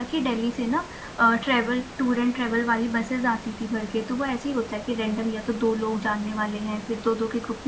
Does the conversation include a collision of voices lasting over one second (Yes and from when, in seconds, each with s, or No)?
No